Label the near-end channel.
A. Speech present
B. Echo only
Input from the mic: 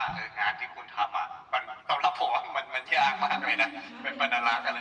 A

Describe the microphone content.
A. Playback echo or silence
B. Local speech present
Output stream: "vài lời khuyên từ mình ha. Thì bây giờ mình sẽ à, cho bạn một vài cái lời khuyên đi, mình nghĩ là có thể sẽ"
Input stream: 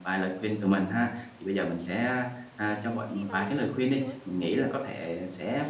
B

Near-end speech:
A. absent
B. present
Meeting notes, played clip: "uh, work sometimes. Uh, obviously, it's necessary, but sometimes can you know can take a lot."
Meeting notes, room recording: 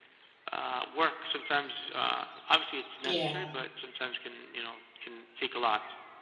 B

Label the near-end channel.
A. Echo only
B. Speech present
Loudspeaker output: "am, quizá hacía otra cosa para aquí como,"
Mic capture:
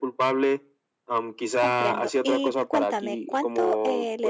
B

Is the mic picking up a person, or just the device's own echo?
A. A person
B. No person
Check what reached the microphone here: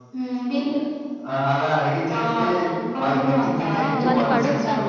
A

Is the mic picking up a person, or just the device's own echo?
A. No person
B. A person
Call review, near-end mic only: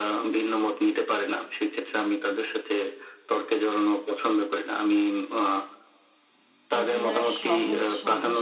B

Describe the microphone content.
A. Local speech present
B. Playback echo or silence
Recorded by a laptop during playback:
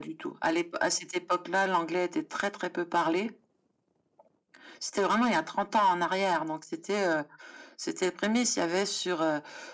B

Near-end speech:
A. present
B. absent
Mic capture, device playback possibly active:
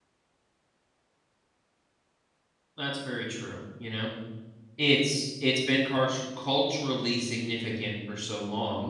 A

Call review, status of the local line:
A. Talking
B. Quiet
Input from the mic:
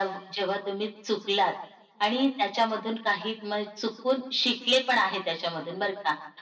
B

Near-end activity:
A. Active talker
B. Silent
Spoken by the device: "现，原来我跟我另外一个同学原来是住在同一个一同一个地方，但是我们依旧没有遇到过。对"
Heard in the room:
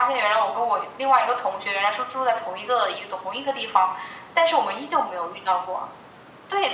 B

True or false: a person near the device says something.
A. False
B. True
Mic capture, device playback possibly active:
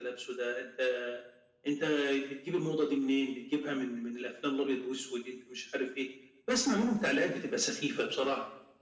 A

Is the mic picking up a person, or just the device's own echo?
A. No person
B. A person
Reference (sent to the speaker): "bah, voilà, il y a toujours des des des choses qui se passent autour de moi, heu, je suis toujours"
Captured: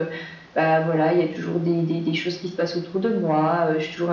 A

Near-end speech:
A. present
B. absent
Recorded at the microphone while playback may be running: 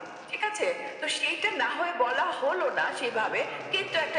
A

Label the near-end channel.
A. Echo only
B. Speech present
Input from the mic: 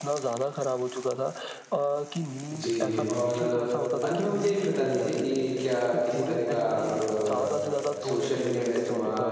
B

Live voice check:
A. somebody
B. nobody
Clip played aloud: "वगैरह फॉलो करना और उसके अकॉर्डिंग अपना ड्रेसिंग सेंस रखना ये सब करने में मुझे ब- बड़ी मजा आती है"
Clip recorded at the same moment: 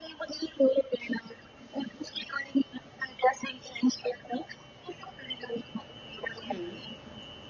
A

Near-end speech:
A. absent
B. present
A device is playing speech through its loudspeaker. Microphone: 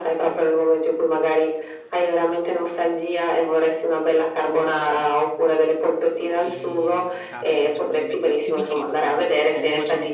B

